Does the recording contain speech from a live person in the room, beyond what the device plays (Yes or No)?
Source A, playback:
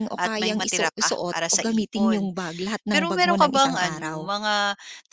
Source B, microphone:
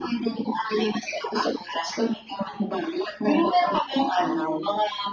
No